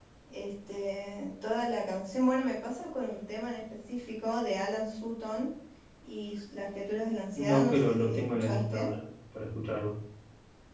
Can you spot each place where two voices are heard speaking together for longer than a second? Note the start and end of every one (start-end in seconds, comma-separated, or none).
7.3-8.9